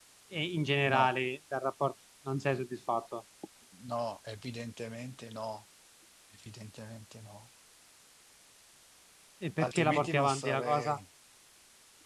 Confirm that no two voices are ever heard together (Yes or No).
No